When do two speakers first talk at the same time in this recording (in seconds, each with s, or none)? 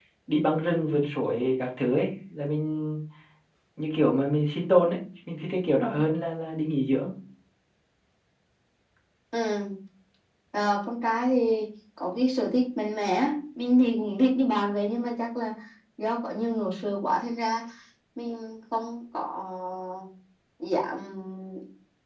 none